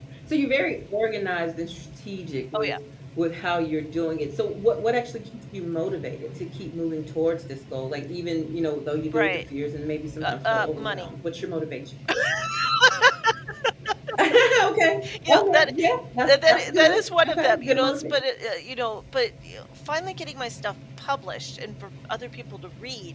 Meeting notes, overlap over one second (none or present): present